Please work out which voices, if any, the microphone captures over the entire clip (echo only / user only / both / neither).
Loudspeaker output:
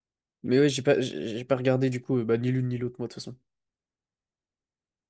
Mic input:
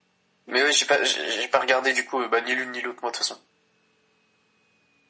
echo only